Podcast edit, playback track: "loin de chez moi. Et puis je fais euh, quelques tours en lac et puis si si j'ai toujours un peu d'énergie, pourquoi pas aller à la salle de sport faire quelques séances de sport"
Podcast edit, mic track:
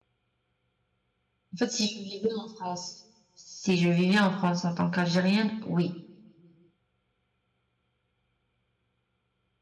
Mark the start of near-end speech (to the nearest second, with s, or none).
2 s